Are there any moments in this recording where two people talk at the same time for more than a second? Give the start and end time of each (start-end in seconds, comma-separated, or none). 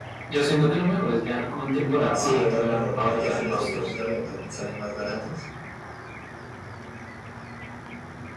2.1-3.9